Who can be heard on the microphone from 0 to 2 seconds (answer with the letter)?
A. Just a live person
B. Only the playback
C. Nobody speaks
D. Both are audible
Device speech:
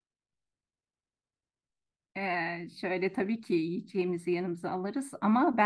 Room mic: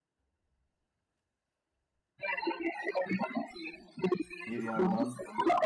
C